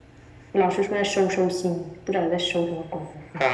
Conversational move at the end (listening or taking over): taking over